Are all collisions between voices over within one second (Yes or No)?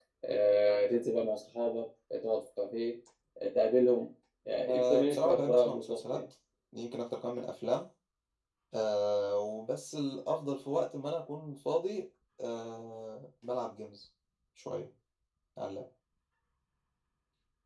No